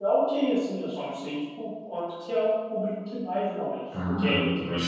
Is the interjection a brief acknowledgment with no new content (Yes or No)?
No